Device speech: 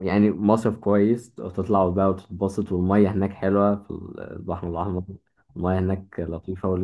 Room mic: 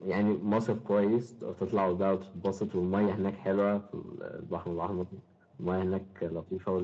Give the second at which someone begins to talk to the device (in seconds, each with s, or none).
none